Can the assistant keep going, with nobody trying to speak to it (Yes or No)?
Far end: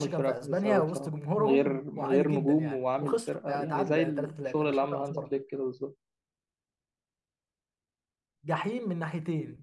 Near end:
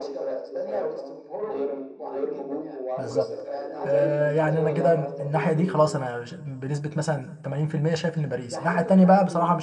No